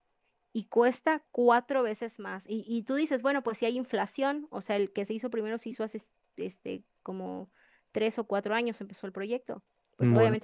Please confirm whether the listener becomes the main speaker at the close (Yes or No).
No